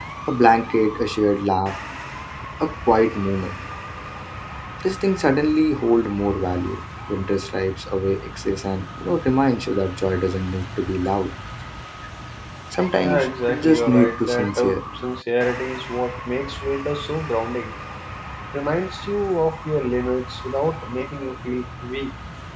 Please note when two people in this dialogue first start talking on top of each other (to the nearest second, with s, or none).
13 s